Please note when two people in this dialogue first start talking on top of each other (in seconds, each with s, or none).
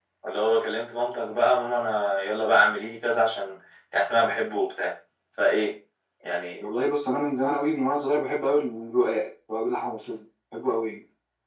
none